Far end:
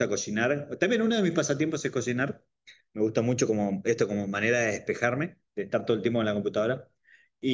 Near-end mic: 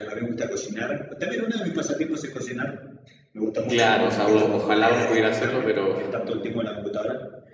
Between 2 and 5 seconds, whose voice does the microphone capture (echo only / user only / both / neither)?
both